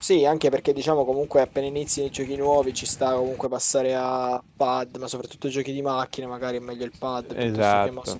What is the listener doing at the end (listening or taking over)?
listening